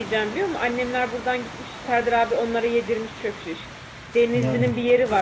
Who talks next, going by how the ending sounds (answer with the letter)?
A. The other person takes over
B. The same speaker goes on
B